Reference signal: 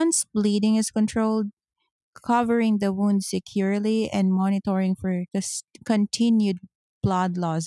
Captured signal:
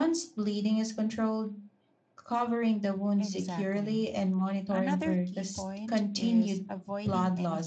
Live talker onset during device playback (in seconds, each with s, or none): 3.2 s